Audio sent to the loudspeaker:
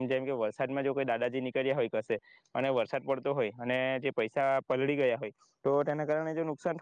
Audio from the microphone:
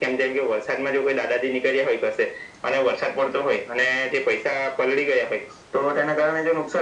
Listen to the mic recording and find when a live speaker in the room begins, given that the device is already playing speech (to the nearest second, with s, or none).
none